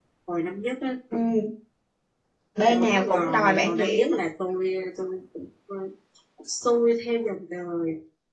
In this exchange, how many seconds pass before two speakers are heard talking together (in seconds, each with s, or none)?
2.7 s